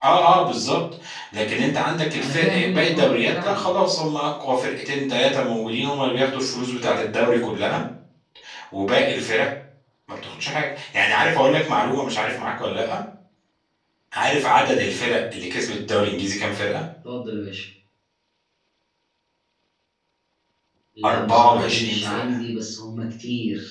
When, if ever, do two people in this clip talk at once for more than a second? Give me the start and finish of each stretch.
2.1-3.7, 21.0-22.4

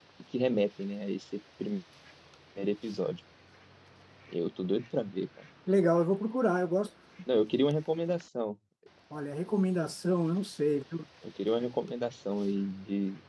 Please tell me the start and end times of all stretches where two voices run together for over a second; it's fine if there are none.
none

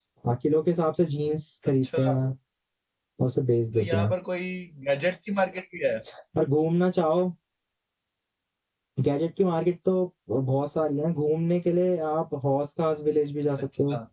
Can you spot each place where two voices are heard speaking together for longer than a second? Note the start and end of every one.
none

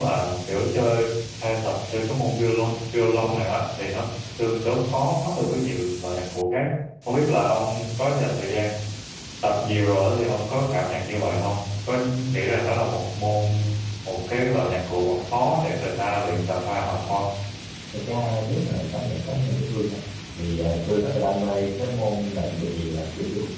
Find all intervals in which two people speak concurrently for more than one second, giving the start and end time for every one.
none

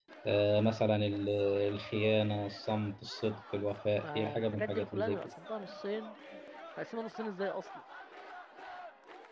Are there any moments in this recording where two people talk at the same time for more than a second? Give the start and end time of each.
4.0-5.3

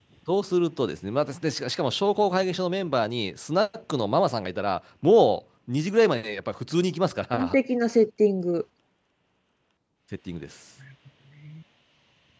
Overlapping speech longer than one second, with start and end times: none

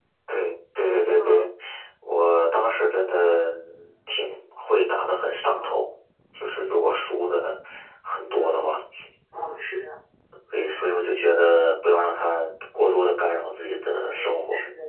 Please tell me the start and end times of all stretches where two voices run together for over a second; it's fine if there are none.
none

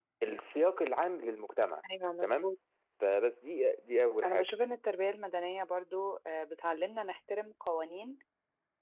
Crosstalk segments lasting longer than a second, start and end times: none

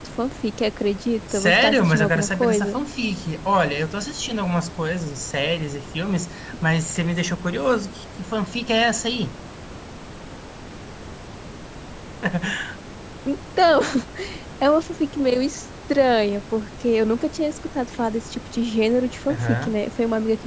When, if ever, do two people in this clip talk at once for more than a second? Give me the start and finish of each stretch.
1.3-2.8

